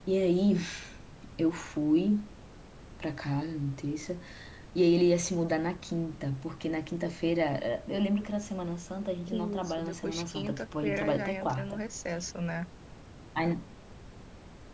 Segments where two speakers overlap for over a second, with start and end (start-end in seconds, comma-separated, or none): 9.3-11.8